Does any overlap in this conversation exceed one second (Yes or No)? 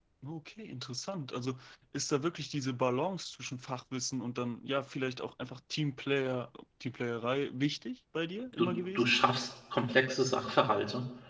No